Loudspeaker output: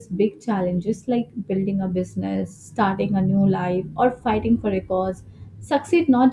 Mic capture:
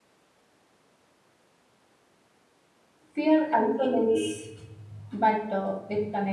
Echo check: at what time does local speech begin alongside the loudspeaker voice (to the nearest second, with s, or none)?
3 s